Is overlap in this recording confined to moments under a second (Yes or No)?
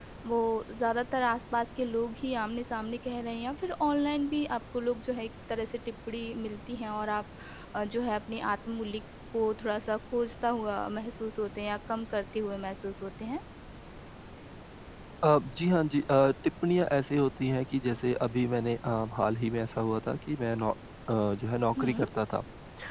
Yes